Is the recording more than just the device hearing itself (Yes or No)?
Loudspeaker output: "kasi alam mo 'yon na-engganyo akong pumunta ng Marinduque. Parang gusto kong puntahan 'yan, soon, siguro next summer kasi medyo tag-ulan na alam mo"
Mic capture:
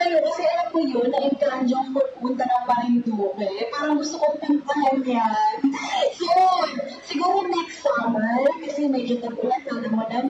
No